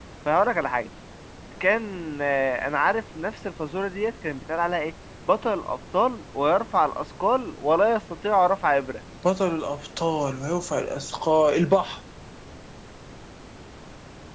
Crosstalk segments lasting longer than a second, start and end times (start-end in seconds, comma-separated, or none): none